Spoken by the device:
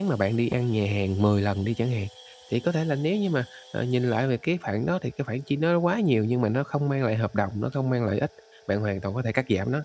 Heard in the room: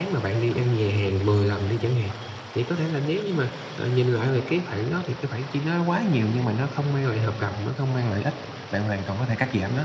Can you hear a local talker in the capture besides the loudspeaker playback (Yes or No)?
No